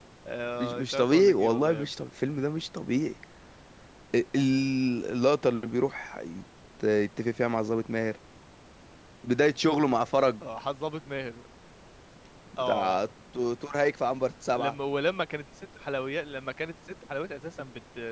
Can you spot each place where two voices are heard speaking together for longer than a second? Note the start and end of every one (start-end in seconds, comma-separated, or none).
0.6-1.9